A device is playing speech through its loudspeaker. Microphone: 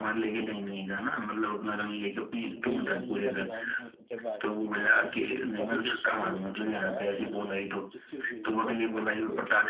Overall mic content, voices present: both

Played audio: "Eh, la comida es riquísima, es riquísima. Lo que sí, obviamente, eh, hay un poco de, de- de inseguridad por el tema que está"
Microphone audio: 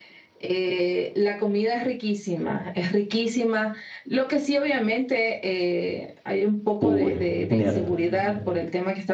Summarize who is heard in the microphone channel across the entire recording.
both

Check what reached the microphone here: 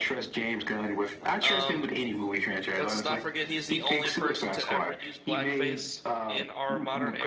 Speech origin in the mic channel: both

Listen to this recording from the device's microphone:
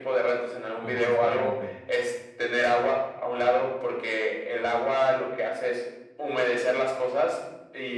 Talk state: both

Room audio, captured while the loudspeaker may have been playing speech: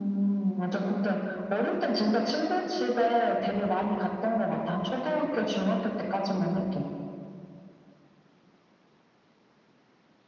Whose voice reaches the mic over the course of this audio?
echo only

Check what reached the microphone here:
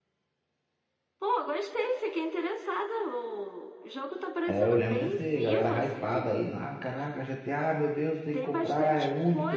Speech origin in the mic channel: both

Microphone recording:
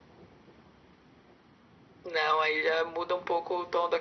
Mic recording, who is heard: echo only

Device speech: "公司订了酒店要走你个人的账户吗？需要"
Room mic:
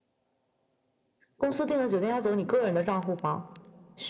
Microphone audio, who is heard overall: echo only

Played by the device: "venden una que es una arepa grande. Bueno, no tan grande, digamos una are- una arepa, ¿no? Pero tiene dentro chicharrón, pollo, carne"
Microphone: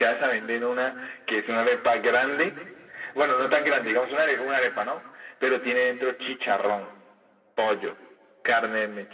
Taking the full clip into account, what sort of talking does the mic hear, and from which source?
echo only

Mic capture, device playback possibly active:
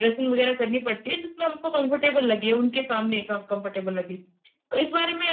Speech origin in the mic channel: echo only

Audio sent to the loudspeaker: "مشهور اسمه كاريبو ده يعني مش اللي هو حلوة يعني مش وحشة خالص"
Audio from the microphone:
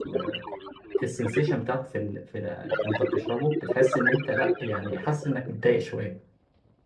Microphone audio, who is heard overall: both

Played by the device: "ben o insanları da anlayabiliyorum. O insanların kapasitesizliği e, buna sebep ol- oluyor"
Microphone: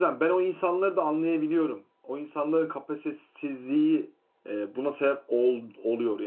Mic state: echo only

